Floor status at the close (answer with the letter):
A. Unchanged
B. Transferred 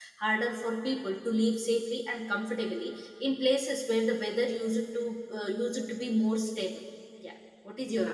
B